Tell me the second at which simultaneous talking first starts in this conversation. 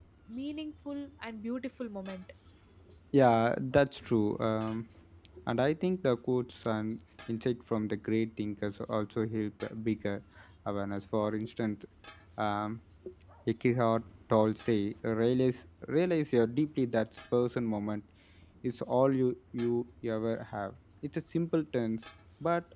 none

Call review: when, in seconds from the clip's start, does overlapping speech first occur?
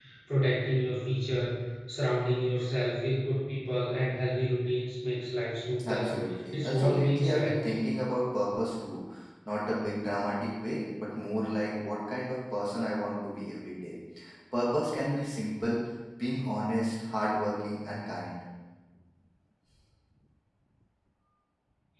5.8 s

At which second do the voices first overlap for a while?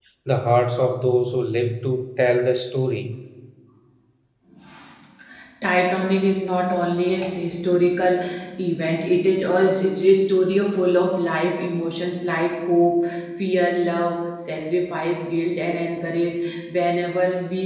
none

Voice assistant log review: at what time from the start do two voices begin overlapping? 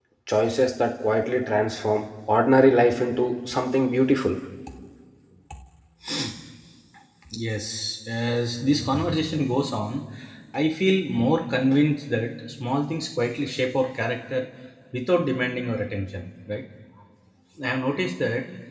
none

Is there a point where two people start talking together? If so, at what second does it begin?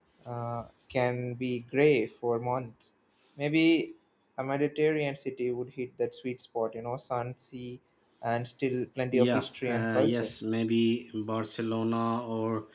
9.1 s

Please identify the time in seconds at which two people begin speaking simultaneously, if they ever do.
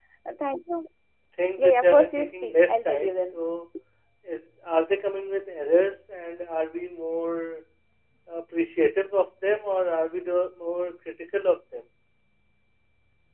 1.6 s

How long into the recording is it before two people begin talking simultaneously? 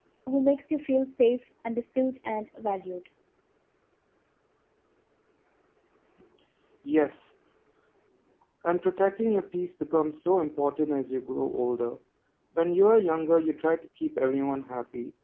none

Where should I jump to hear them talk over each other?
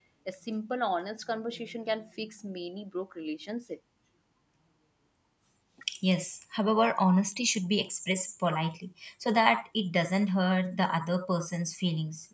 none

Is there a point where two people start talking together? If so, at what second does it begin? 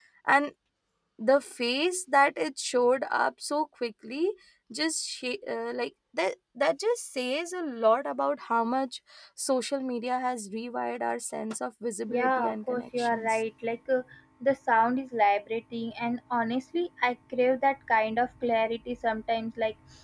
12.1 s

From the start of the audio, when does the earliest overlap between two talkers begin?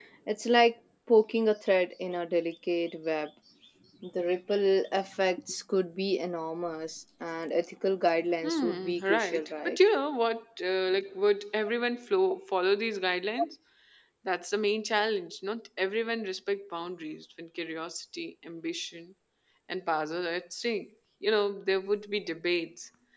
8.4 s

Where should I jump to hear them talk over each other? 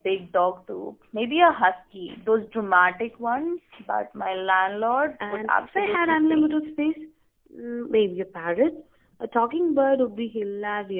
5.2 s

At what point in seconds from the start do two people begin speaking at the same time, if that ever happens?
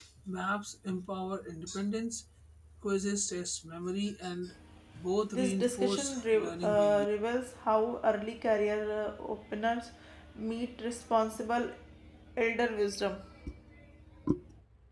5.3 s

